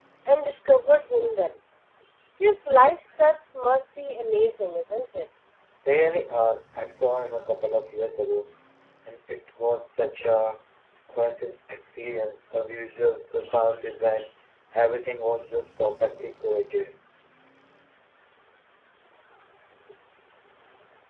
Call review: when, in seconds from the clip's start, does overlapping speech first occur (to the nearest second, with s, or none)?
none